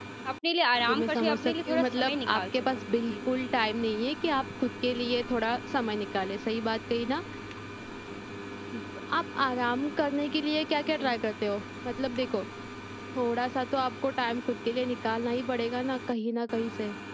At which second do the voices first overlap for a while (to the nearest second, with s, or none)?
1 s